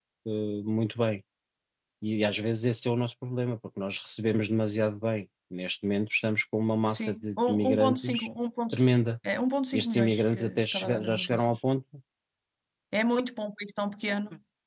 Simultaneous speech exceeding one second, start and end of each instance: 6.9-8.3, 9.7-11.6

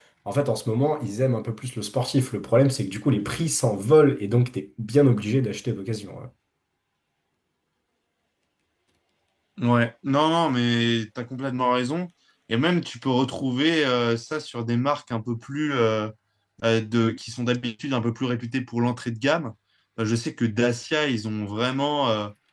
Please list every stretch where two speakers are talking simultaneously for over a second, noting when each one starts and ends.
none

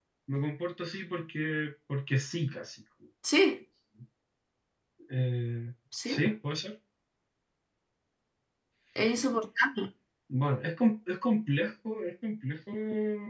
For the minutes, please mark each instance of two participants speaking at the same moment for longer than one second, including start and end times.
none

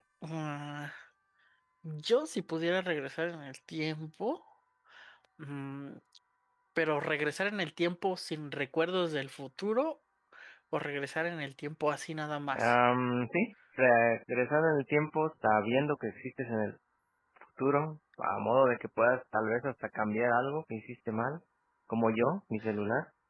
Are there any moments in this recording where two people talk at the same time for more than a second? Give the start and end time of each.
none

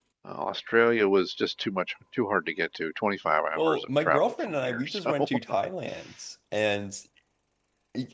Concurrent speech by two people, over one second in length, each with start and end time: 3.6-5.3

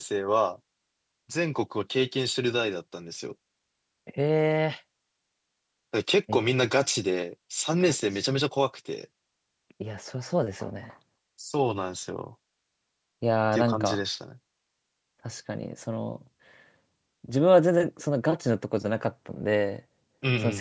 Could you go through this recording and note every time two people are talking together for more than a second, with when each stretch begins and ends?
none

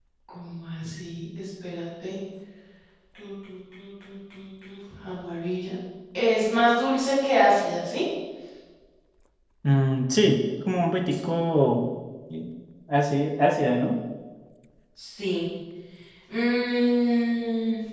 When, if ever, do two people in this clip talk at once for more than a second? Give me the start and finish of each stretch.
none

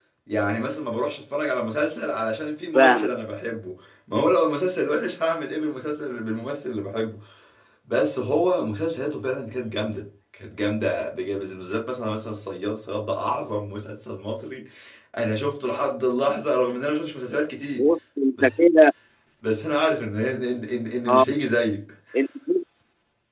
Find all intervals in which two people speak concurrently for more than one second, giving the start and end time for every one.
none

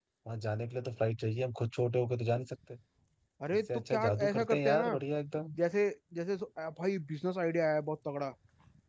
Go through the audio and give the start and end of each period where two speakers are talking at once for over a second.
3.5-5.0

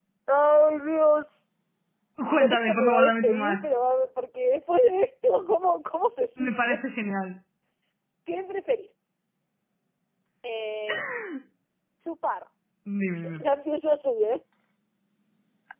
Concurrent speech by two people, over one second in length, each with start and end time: 2.3-3.7

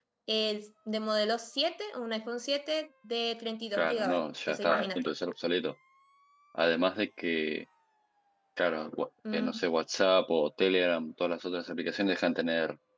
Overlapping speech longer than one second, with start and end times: 3.7-5.1

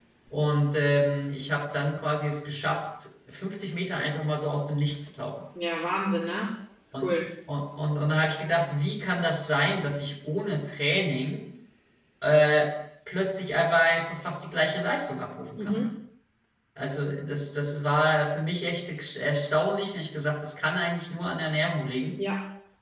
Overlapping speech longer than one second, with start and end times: none

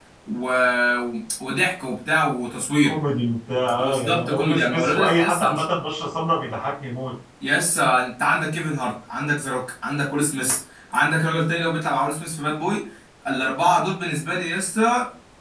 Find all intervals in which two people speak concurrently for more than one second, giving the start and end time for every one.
3.8-5.6

